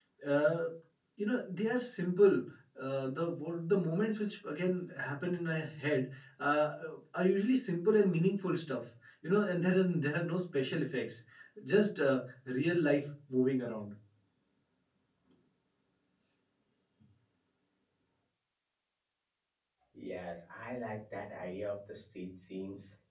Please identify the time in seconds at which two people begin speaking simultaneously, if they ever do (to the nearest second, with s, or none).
none